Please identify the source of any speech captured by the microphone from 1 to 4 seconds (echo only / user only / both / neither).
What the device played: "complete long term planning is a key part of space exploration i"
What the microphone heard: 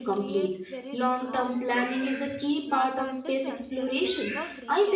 both